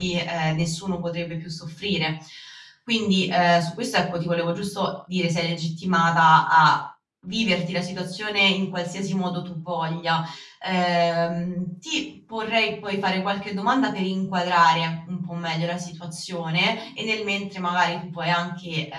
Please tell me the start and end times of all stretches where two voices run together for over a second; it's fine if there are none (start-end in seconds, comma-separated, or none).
none